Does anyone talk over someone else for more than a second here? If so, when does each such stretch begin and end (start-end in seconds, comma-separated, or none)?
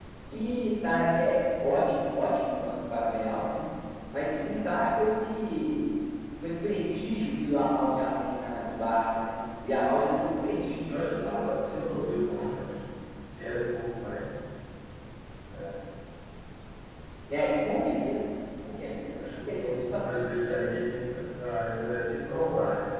10.8-12.7, 19.3-20.8